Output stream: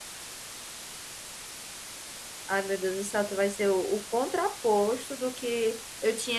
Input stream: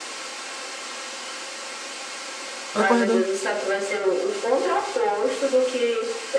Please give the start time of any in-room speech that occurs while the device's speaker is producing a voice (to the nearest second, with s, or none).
3 s